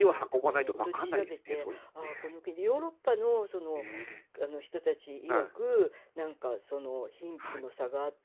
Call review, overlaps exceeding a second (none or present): present